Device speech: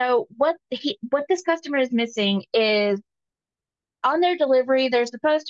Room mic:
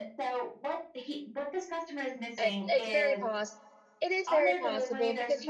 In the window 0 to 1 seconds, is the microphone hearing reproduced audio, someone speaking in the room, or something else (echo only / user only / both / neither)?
echo only